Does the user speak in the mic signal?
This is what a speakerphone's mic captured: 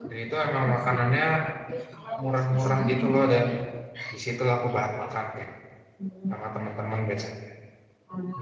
Yes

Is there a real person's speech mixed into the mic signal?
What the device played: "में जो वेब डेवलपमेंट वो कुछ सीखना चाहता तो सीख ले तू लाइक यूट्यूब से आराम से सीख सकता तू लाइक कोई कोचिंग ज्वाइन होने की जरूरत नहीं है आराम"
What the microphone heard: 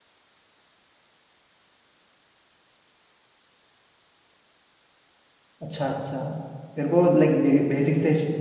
Yes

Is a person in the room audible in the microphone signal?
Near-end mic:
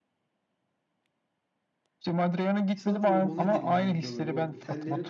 Yes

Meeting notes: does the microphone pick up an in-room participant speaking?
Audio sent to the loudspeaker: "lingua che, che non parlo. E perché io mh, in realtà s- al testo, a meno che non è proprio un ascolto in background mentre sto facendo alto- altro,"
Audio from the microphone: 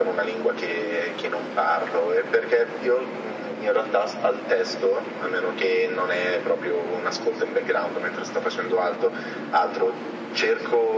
No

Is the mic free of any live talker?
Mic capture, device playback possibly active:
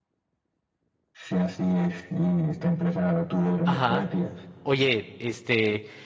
No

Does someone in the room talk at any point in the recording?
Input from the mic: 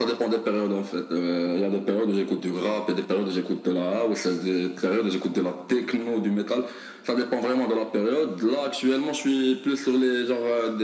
No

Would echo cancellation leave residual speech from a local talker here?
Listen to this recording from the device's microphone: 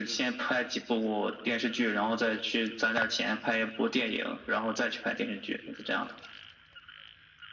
No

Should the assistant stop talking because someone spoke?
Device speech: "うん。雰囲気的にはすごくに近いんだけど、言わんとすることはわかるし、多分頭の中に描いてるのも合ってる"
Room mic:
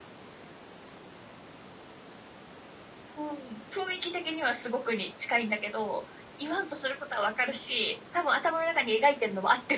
No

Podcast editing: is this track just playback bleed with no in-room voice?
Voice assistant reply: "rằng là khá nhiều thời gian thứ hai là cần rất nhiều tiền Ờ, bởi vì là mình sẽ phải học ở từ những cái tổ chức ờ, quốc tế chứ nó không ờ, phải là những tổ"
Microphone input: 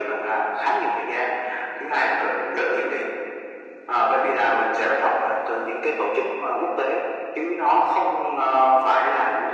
Yes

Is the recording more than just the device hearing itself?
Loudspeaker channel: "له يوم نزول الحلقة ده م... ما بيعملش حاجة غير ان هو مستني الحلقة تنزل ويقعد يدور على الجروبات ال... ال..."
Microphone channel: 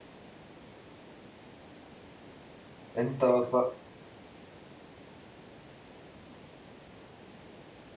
Yes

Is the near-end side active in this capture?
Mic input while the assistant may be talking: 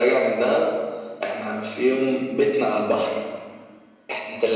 No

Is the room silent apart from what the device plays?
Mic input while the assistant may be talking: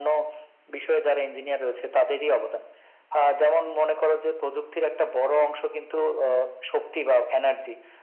Yes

